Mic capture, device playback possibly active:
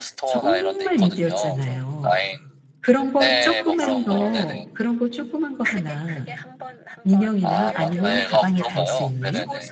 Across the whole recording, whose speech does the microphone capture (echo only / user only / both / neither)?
both